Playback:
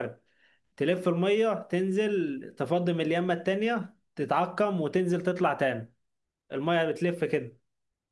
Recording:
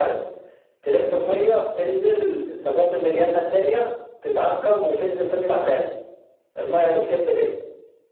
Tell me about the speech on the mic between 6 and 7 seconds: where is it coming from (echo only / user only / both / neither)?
echo only